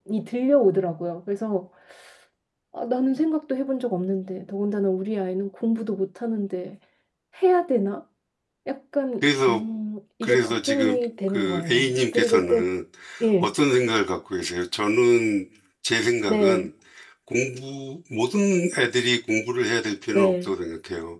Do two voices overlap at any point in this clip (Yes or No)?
Yes